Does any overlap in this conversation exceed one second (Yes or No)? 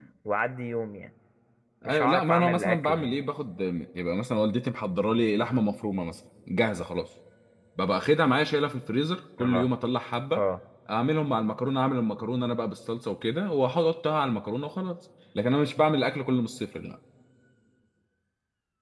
Yes